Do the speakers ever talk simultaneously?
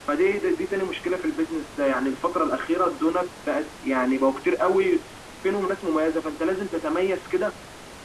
No

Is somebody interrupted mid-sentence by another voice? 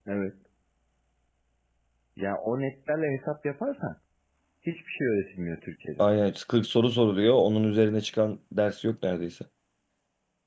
No

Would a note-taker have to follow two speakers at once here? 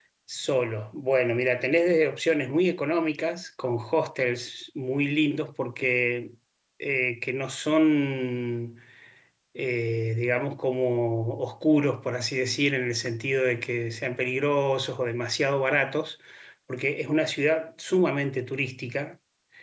No

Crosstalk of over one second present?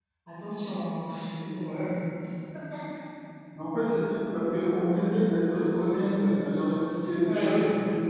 No

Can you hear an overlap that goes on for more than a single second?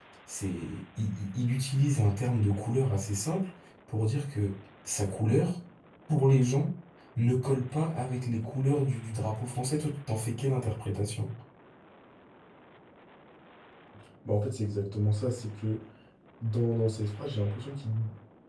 No

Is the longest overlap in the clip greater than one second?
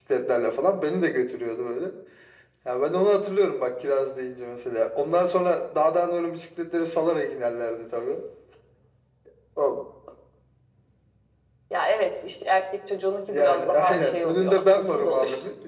Yes, from 13.2 s

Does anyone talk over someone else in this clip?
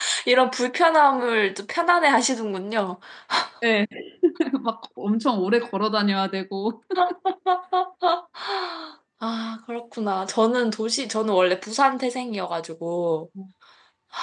No

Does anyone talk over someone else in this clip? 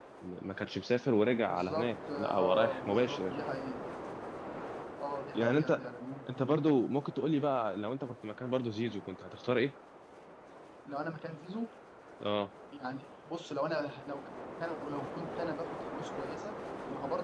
Yes, from 1.5 s

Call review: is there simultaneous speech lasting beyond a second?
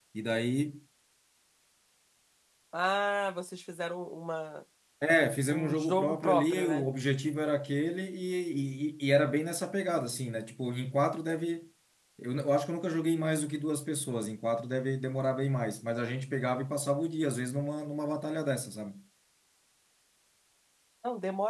Yes, from 5.5 s

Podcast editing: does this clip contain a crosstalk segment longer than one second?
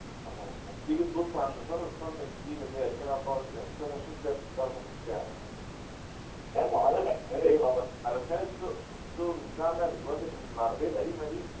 No

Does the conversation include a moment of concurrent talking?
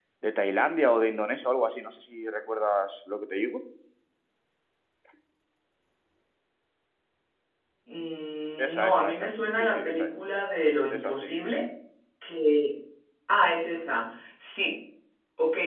Yes, from 8.6 s

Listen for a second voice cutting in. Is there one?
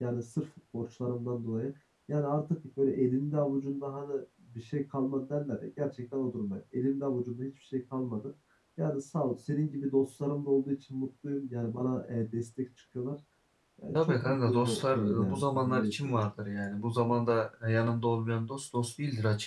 Yes, from 14.0 s

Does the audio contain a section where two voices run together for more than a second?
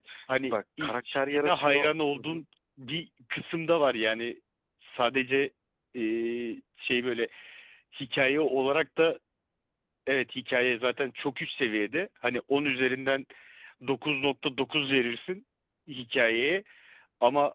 Yes, from 0.8 s

